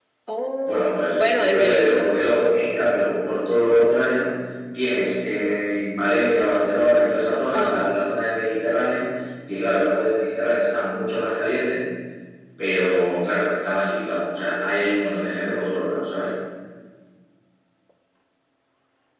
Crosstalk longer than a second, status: present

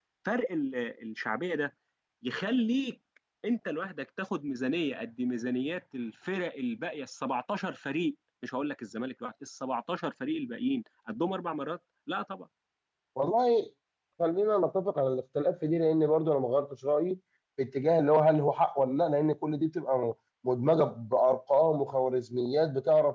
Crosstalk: none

